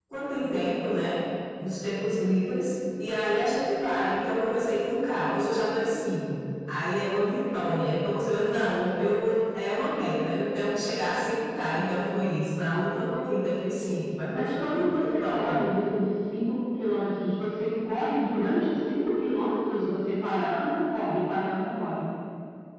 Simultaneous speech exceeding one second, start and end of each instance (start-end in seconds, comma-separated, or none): 14.3-15.6